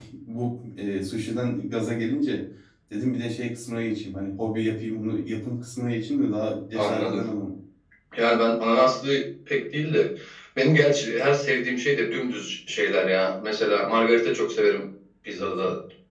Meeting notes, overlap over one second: none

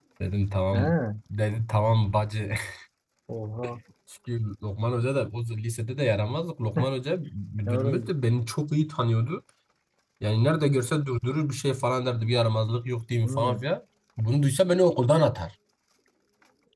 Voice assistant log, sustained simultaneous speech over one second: none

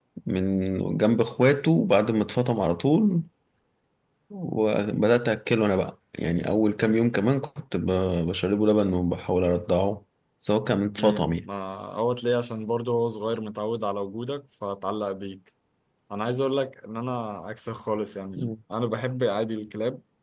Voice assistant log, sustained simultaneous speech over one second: none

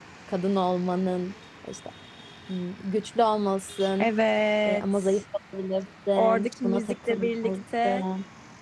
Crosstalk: present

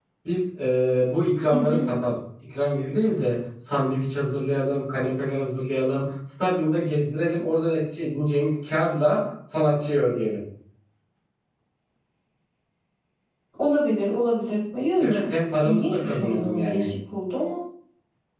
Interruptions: present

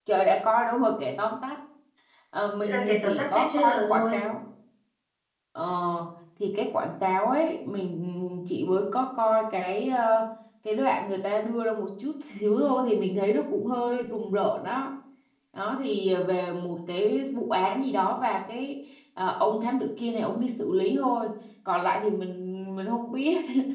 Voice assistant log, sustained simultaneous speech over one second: present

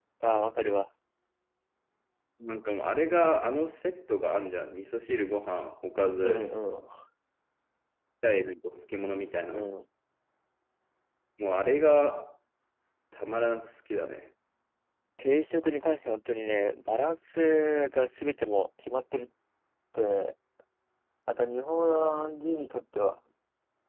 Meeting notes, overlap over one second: none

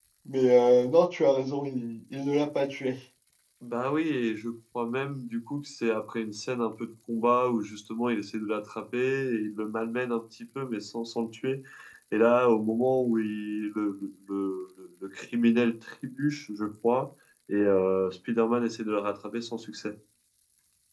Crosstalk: none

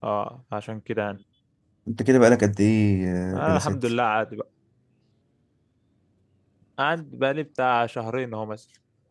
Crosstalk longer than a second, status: none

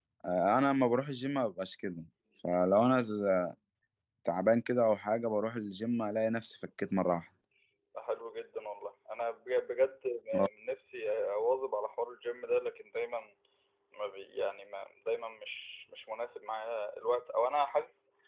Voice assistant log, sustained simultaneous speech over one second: none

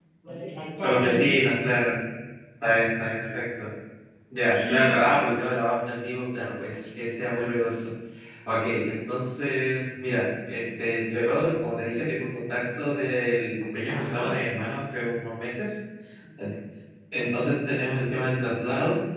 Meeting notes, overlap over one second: none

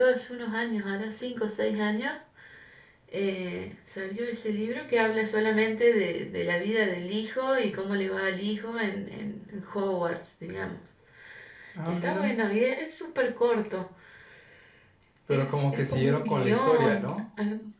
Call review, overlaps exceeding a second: present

